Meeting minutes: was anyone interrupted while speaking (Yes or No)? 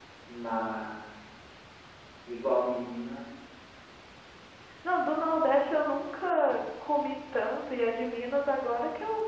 No